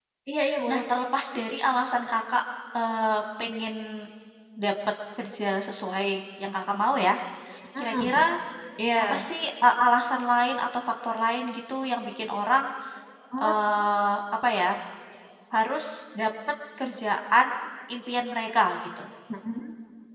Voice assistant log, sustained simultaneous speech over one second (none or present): none